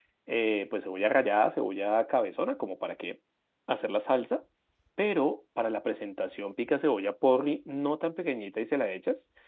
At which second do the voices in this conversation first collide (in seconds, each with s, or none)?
none